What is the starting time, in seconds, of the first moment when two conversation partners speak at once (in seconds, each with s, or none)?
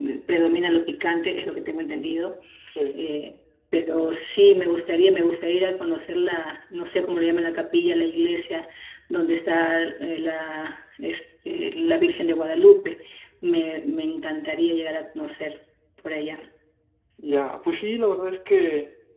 none